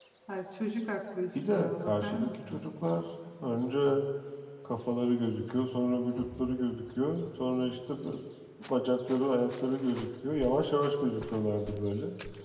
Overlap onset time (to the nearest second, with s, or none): 1 s